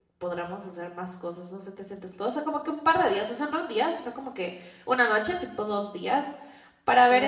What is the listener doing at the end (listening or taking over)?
listening